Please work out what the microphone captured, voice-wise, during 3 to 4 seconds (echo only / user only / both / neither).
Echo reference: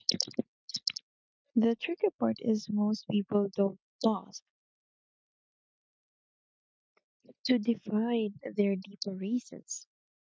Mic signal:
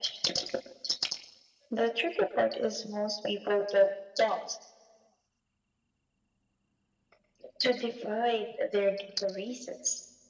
echo only